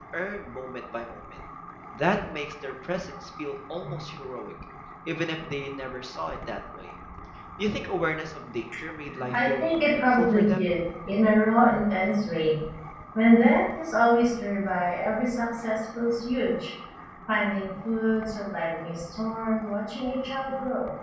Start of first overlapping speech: 9.1 s

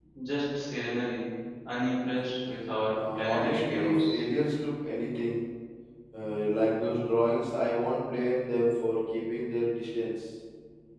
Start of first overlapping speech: 2.9 s

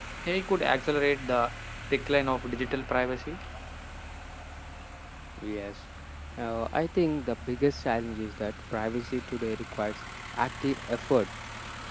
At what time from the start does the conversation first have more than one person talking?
none

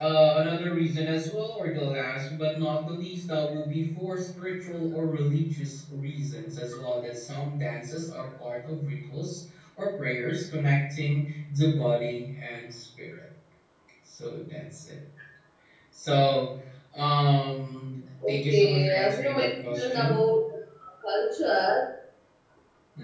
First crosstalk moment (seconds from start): 18.2 s

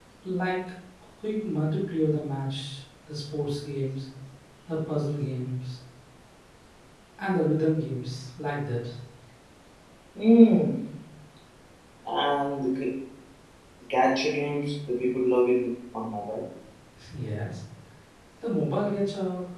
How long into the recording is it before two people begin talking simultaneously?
none

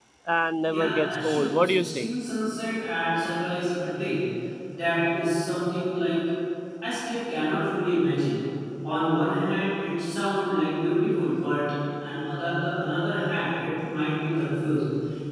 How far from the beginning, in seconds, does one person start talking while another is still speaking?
0.7 s

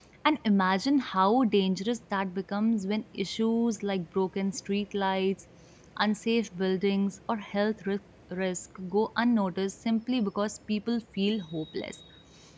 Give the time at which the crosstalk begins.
none

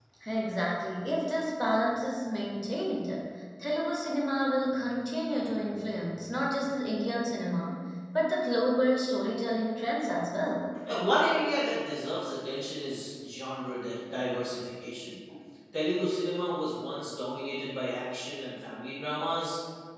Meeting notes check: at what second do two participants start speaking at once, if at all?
none

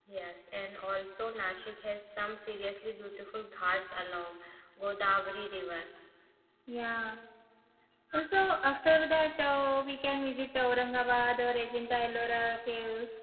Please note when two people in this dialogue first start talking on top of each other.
none

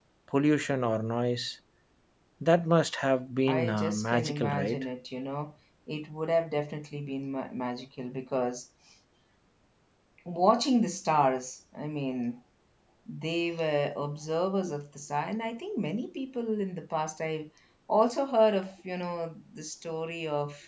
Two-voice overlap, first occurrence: 3.5 s

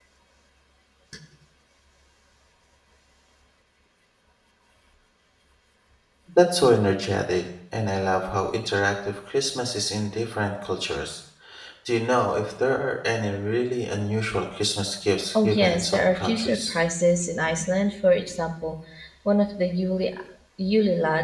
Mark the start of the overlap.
15.3 s

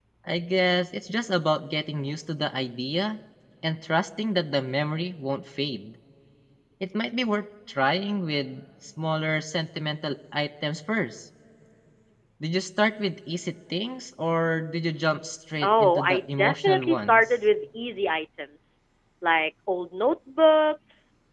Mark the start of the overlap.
15.6 s

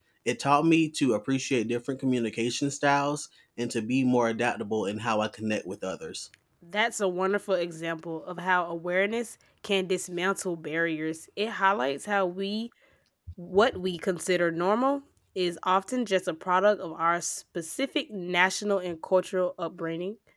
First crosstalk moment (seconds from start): none

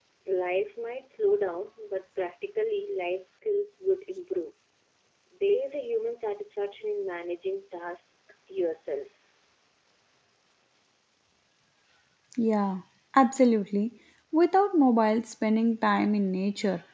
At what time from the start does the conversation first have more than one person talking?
none

